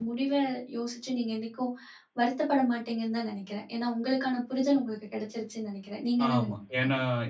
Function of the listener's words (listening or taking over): taking over